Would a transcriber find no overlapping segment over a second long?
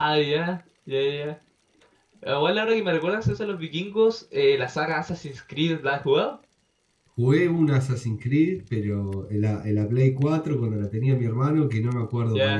Yes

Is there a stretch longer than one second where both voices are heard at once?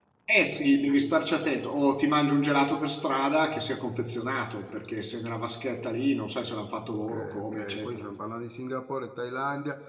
Yes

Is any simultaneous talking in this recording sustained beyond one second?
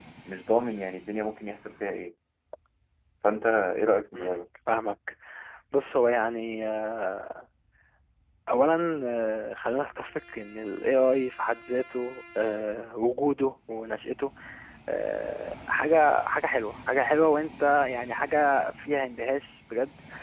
No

